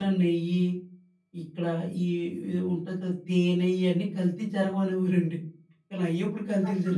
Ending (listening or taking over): taking over